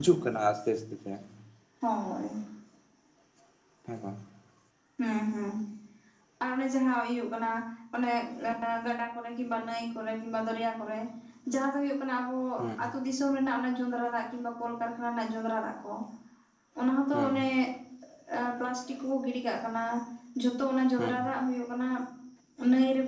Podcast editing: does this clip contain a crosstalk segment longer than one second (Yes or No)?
No